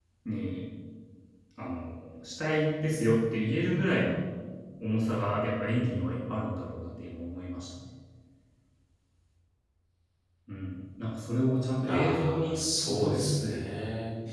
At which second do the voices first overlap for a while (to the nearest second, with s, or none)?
12 s